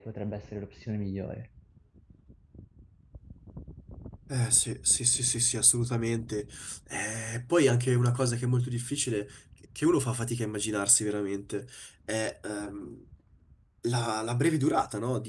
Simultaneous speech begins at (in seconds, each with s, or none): none